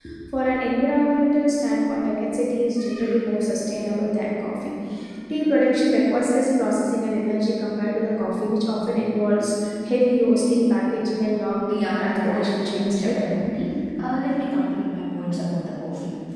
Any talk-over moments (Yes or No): Yes